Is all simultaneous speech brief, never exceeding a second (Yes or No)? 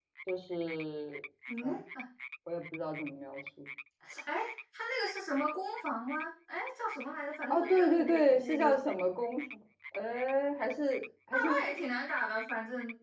No